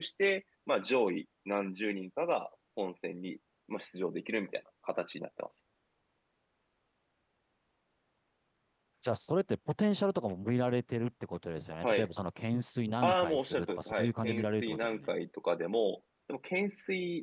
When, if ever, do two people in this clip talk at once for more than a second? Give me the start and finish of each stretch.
13.0-15.1

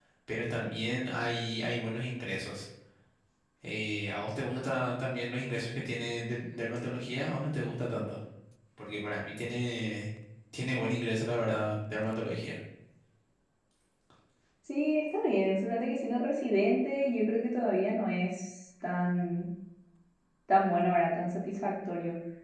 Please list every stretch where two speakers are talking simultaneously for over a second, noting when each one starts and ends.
none

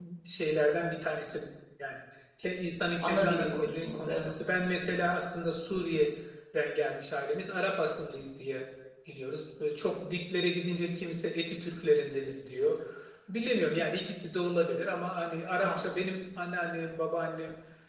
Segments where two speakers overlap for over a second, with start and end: 3.0-4.4

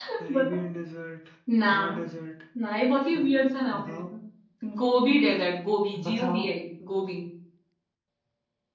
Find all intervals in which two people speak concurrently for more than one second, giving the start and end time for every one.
none

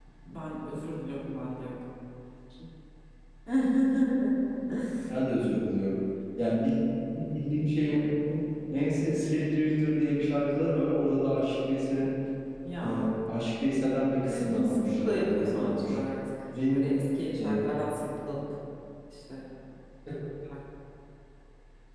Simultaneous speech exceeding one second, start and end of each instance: 14.3-15.9

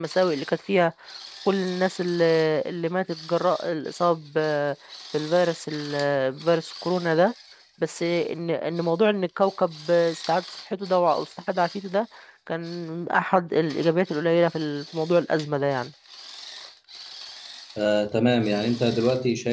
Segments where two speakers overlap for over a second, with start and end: none

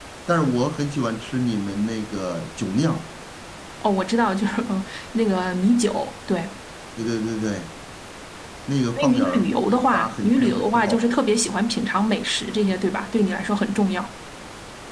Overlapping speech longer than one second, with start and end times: 9.0-11.0

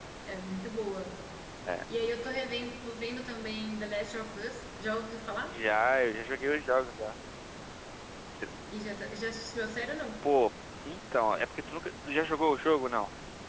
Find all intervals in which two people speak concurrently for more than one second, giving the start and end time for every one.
none

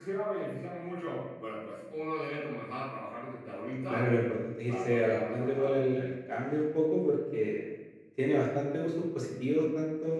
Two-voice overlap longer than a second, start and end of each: 4.7-5.9

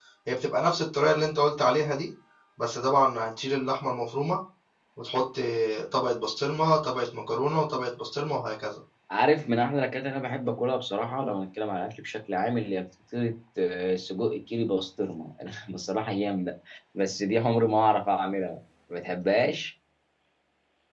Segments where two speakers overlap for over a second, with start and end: none

